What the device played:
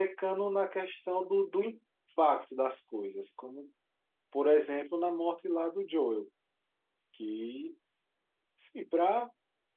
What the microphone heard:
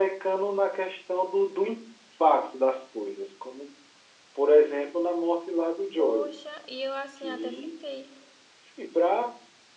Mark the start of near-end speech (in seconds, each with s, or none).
6.0 s